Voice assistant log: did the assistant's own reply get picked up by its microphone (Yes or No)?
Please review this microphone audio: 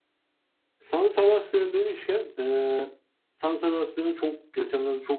Yes